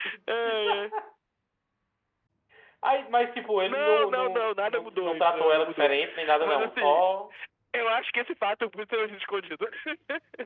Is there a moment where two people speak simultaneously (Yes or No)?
Yes